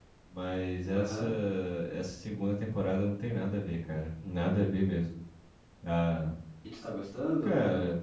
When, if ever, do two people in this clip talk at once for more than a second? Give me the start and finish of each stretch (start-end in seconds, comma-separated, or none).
none